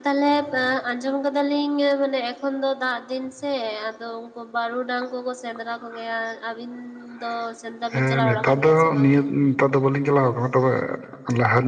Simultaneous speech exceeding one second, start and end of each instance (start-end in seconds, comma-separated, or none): 7.9-9.2